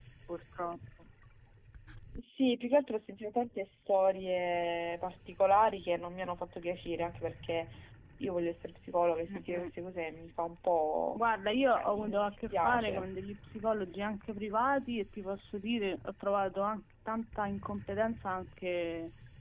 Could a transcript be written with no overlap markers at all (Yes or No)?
No